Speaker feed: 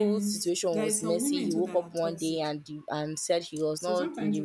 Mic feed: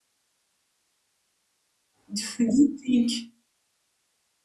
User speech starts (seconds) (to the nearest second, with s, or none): 2 s